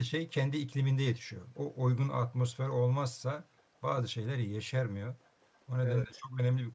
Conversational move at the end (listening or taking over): listening